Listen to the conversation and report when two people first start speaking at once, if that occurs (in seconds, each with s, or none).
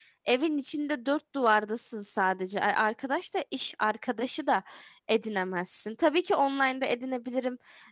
none